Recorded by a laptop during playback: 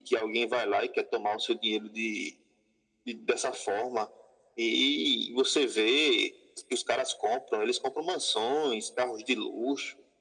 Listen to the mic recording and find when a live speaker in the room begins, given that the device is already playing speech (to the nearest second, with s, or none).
none